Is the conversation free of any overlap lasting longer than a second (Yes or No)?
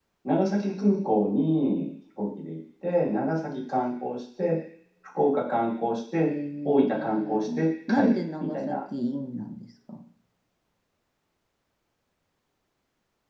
No